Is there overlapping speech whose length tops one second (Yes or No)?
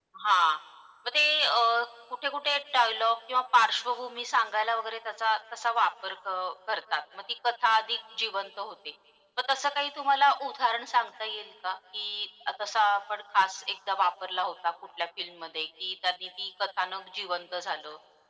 No